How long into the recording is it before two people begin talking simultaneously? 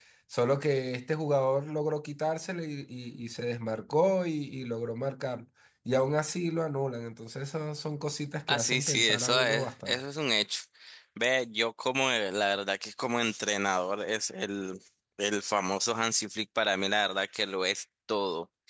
8.5 s

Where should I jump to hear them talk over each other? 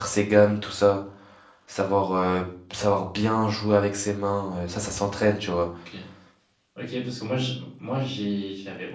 none

